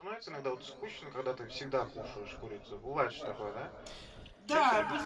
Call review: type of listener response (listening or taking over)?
taking over